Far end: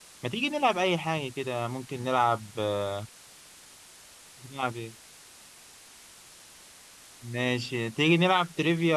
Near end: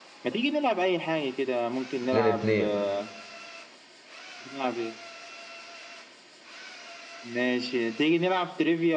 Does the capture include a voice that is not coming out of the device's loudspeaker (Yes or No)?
Yes